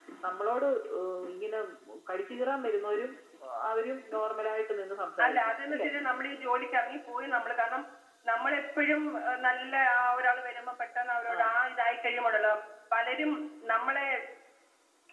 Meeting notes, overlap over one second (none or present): none